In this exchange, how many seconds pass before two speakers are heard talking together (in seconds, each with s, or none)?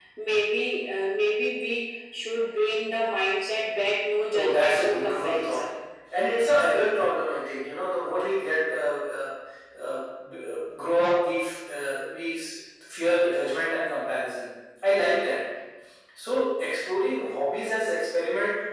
4.3 s